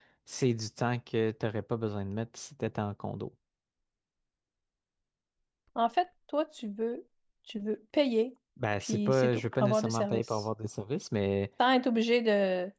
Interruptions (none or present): present